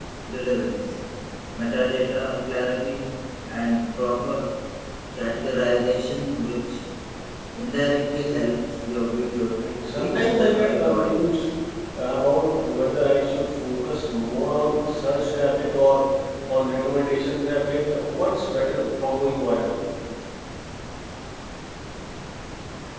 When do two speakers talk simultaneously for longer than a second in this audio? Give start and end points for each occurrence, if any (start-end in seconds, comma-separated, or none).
9.9-11.3